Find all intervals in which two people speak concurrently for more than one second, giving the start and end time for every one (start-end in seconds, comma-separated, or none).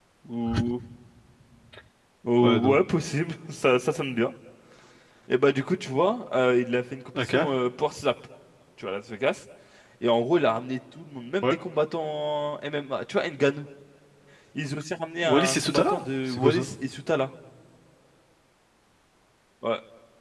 15.2-16.7